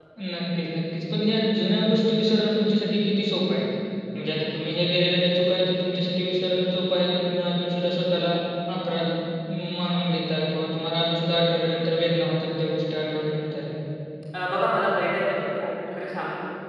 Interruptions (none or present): none